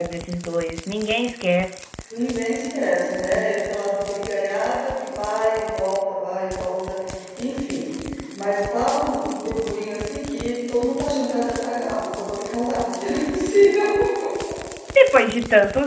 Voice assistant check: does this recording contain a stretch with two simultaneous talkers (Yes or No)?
No